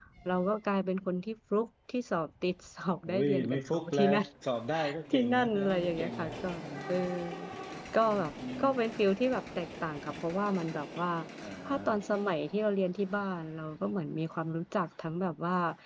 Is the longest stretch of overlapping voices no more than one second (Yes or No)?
No